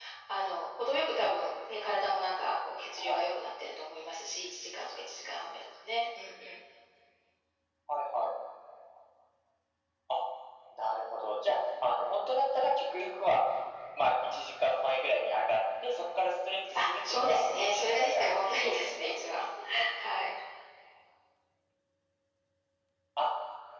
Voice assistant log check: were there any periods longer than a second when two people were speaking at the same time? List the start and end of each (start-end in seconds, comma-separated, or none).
16.8-19.1